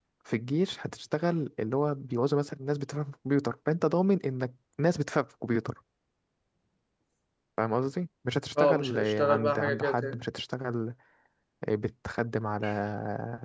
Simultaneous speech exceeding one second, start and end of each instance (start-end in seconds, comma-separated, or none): 8.6-10.2